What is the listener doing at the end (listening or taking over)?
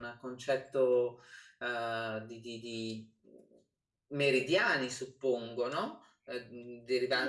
taking over